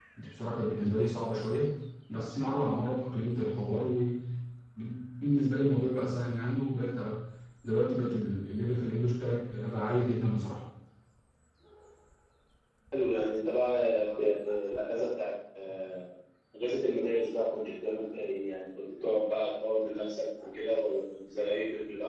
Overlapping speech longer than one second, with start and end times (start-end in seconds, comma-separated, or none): none